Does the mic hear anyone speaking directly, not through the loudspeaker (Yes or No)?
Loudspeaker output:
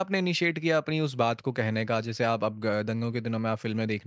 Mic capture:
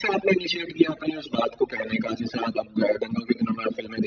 No